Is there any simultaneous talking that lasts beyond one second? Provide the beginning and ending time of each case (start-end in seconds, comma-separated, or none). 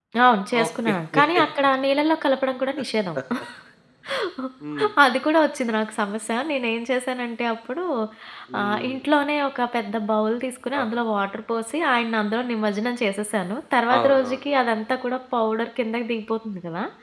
none